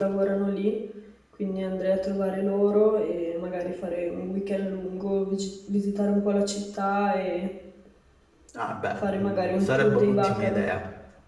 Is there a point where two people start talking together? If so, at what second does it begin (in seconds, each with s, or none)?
9.0 s